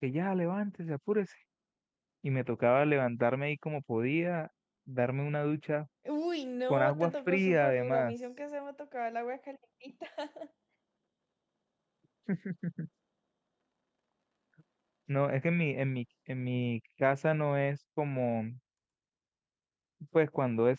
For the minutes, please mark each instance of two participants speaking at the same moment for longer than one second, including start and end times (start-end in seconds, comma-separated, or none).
6.7-8.1